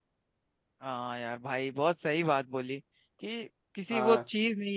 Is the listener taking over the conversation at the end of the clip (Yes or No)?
No